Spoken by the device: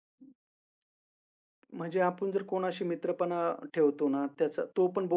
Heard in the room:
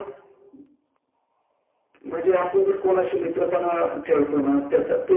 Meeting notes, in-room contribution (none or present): none